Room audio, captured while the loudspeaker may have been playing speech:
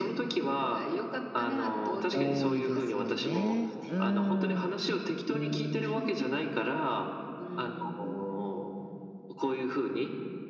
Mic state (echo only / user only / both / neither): both